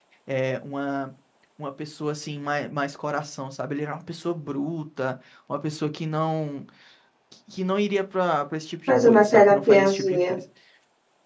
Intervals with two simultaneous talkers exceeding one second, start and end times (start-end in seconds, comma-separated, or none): 8.9-10.4